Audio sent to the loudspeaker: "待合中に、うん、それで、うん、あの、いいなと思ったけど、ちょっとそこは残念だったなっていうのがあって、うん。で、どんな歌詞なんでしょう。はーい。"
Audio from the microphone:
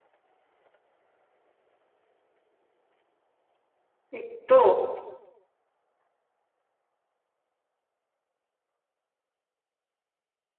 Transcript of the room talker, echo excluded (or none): えっと、